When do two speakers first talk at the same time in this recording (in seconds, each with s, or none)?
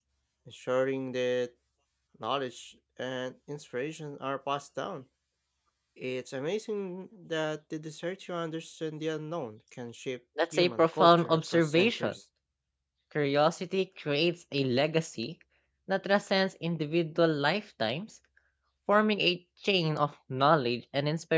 10.4 s